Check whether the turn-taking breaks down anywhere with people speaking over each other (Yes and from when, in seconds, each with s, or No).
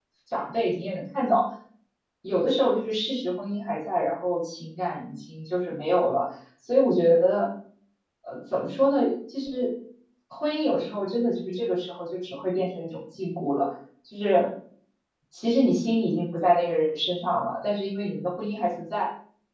No